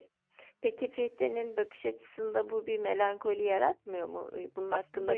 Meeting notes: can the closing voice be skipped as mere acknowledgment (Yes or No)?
No